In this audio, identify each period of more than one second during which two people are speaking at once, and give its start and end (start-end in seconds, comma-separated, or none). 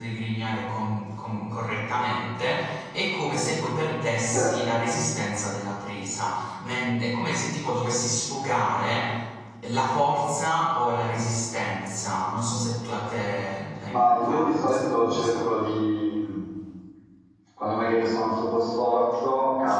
13.9-15.5